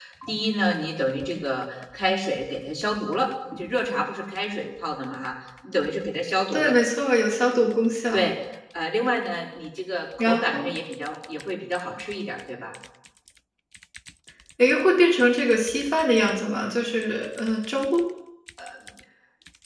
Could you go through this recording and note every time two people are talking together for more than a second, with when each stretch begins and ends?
none

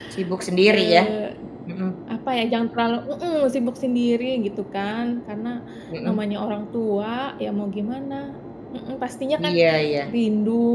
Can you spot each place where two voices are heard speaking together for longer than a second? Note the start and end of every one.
none

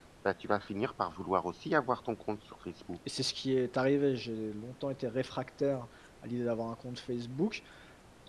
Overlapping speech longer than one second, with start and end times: none

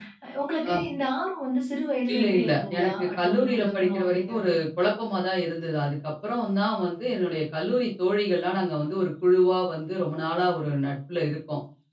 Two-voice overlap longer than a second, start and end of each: 2.1-4.5

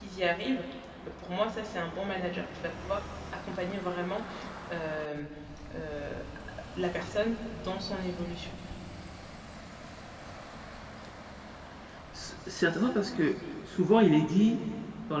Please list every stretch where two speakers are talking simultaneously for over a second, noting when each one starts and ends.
none

